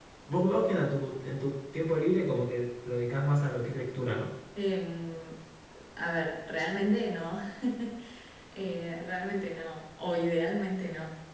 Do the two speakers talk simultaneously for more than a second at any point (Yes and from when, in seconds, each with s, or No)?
No